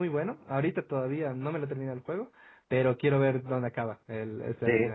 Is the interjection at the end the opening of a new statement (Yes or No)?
Yes